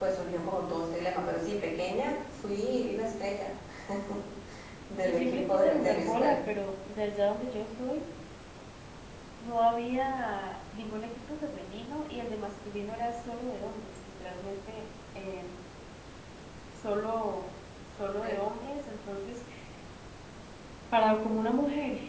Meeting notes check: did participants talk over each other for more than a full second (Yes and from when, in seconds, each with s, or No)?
Yes, from 5.0 s